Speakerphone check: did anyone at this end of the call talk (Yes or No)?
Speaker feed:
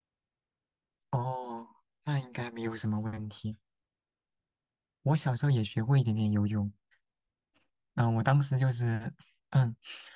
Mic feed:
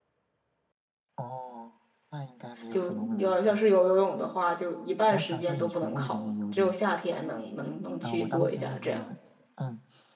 Yes